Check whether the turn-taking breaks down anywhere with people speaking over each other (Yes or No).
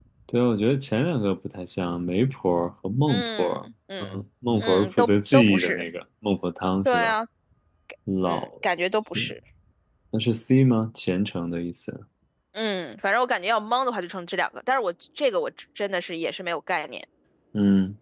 Yes